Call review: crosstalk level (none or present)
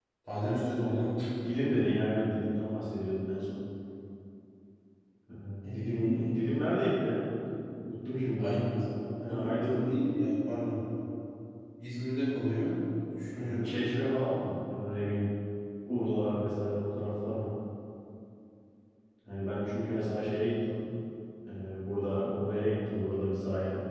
present